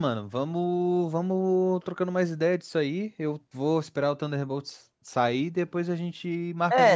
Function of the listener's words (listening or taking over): taking over